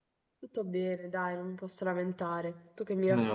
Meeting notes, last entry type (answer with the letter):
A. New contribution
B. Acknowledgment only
A